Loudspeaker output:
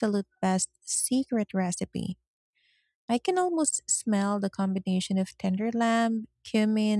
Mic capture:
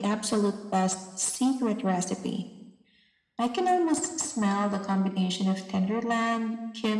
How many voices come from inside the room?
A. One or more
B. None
B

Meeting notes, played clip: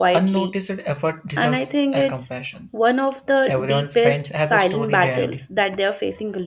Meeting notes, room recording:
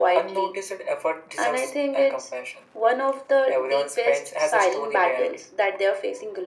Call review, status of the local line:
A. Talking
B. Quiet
B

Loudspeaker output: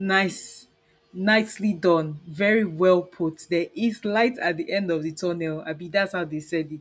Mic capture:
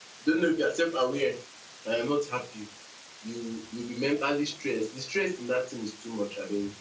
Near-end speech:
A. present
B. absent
A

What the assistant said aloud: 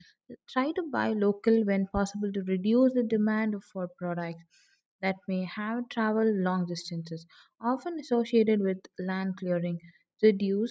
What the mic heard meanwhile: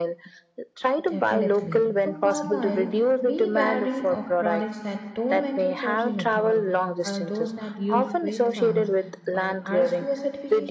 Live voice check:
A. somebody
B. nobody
A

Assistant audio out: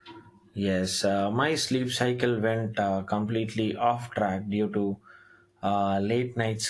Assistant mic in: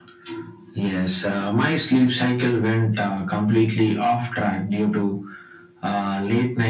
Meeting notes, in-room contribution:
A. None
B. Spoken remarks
A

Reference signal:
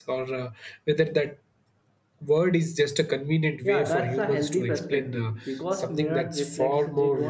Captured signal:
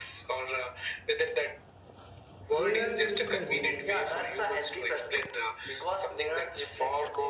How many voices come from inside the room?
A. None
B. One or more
B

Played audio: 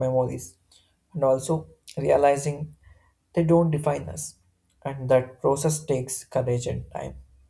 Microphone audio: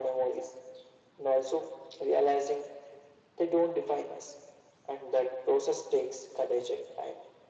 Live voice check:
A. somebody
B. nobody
B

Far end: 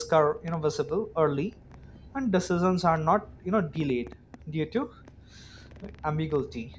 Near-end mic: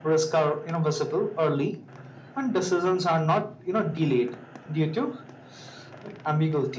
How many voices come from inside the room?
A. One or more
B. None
B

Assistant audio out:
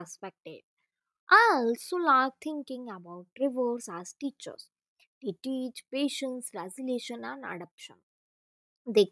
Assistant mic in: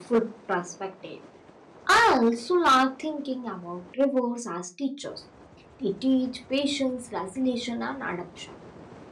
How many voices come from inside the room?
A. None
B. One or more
A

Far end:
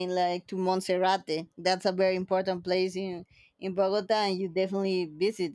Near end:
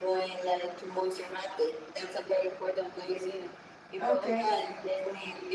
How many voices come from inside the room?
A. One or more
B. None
A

